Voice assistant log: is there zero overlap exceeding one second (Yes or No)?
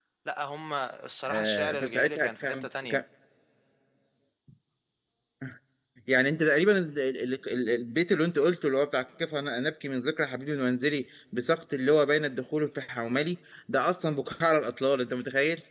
No